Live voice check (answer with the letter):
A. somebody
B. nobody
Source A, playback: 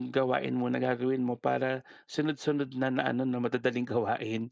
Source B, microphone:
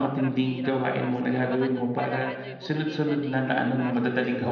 A